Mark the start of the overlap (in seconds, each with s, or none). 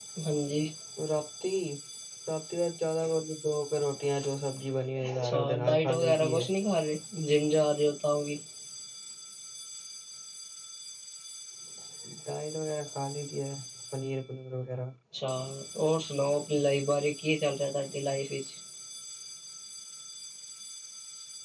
5.0 s